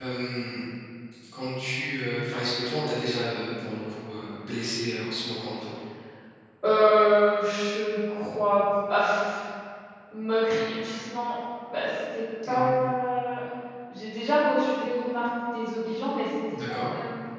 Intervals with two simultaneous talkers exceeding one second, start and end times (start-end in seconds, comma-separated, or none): none